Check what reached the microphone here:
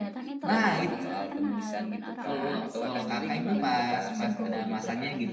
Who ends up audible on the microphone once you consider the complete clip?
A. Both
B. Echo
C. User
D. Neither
A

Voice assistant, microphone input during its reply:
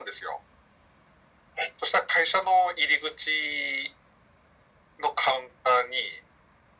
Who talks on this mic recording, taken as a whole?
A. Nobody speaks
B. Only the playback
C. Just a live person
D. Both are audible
B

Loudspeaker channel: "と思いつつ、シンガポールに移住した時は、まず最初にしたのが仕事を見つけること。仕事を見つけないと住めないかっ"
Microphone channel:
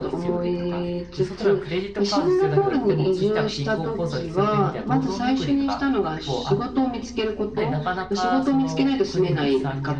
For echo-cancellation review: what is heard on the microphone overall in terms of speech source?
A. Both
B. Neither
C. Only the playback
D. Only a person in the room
A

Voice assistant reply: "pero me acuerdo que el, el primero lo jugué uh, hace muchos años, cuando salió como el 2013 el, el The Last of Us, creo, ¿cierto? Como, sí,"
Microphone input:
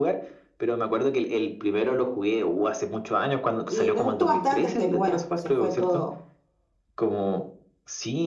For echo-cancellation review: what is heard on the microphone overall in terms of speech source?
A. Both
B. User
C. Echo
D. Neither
A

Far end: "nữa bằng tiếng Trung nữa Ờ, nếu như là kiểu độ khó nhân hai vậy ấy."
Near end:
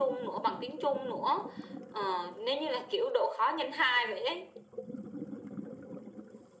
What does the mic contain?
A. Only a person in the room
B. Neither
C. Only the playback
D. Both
C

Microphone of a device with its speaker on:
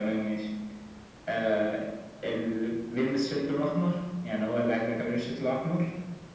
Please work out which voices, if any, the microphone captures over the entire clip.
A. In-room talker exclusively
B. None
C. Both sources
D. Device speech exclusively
D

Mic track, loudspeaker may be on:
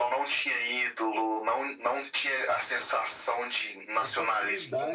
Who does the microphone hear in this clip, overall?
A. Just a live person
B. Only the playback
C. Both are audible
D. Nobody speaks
C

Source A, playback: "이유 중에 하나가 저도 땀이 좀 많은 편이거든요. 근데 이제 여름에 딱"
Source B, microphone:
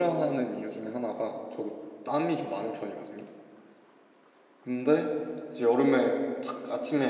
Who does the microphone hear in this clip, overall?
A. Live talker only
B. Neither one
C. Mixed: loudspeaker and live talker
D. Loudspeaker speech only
D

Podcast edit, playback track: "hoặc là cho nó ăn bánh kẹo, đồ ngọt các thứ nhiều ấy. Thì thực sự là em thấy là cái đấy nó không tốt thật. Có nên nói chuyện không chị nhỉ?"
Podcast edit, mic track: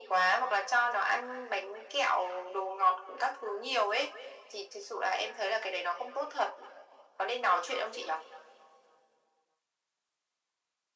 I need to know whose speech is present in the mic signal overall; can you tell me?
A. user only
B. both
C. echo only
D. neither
C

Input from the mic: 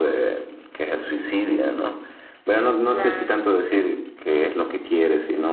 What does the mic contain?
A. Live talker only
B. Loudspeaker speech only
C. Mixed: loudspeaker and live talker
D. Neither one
C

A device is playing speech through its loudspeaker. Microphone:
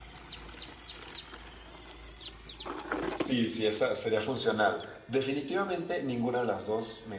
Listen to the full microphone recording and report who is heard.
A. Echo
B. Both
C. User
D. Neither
C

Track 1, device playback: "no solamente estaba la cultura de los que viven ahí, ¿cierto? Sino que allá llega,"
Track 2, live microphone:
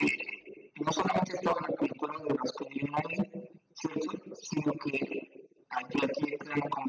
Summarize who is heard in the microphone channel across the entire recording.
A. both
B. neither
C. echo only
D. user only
C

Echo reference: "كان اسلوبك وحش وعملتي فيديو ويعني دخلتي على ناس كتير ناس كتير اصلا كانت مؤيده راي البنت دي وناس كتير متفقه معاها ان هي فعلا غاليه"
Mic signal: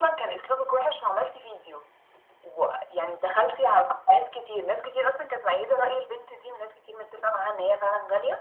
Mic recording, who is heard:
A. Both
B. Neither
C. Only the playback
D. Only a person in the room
C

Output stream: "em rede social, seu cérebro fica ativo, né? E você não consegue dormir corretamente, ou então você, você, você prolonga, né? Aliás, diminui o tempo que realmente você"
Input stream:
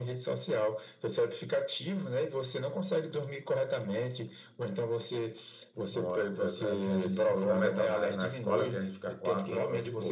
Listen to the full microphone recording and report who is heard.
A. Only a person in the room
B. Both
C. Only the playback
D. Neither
B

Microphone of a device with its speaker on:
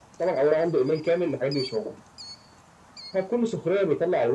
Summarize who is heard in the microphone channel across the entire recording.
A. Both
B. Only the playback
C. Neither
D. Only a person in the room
B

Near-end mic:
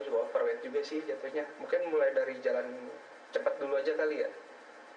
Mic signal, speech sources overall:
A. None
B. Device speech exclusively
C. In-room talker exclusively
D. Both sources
B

